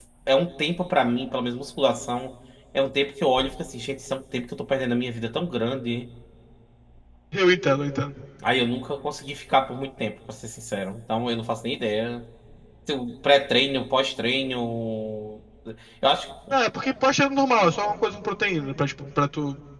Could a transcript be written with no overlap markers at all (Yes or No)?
Yes